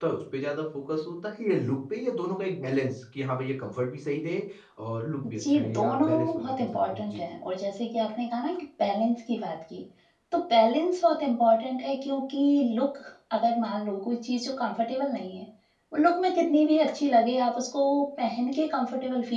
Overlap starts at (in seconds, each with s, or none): 5.2 s